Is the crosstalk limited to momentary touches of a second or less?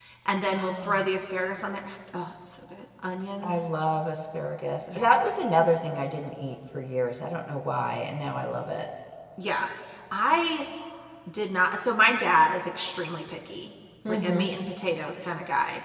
Yes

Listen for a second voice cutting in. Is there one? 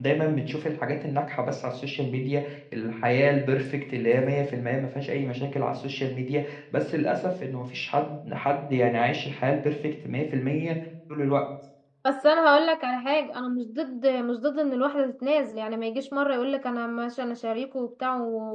No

